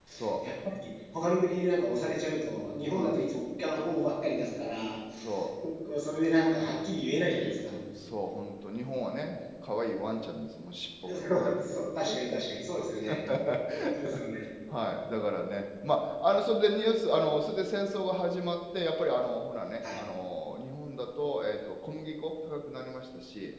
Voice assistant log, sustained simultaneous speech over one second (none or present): none